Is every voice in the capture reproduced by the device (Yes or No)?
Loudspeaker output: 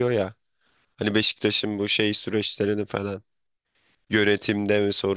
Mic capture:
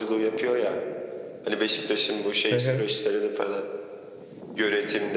No